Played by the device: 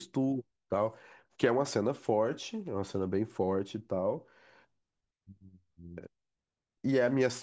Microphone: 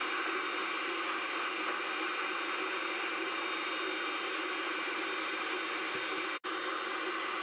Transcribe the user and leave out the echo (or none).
none